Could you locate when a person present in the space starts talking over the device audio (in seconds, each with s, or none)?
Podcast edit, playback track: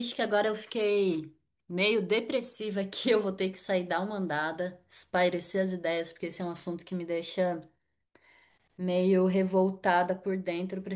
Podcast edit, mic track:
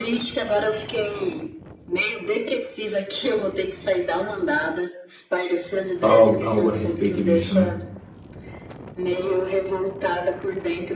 6.0 s